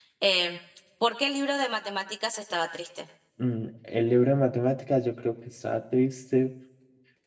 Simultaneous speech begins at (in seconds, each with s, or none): none